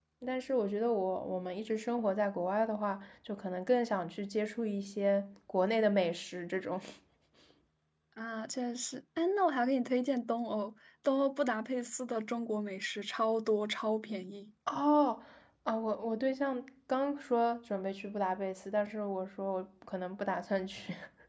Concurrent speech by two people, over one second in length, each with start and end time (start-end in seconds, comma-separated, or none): none